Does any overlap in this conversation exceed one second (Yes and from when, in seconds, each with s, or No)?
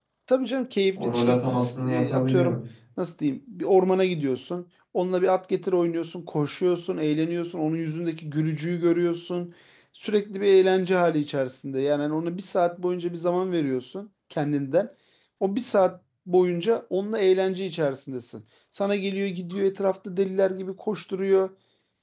Yes, from 1.0 s